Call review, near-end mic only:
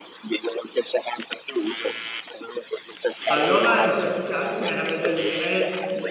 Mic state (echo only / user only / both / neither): both